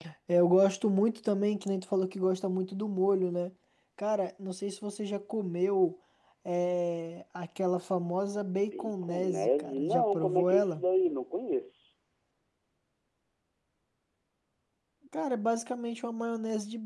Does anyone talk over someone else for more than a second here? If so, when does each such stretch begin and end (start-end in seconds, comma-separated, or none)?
8.7-10.8